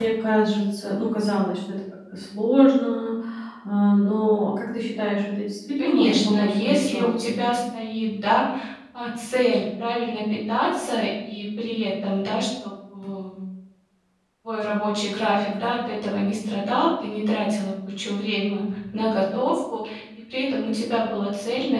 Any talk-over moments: Yes, from 5.8 s

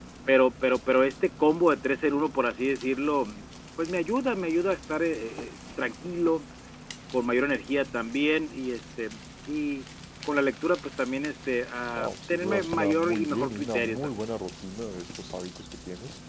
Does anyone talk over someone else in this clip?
Yes, from 11.9 s

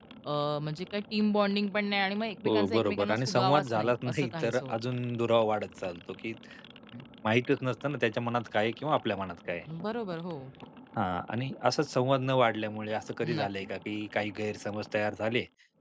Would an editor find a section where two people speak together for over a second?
Yes, from 2.4 s

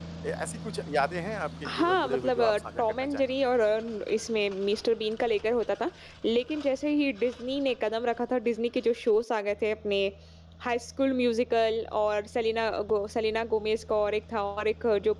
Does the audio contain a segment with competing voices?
Yes, from 1.6 s

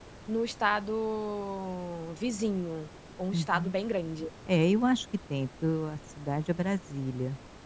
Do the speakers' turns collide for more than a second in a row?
No

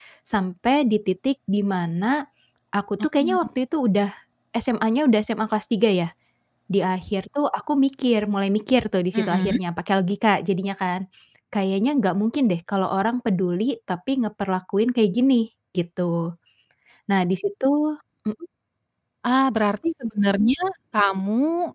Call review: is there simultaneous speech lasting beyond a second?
No

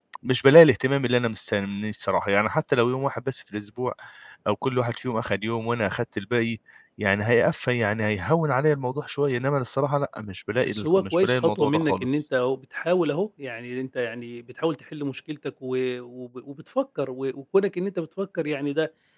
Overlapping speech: Yes, from 10.6 s

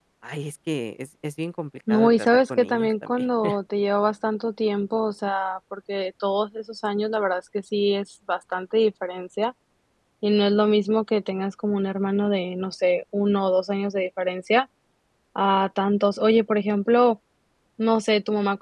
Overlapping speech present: Yes, from 1.9 s

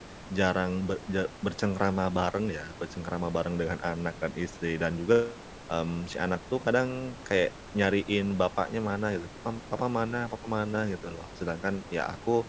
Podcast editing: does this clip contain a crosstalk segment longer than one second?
No

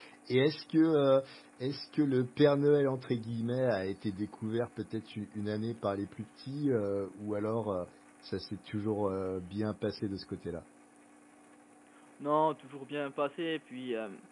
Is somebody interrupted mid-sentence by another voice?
No

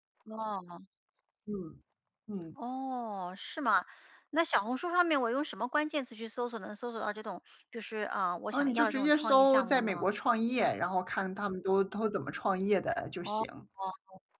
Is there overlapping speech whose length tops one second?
Yes, from 8.5 s

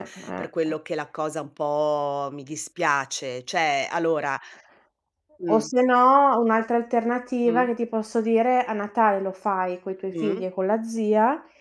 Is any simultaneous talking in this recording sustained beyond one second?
No

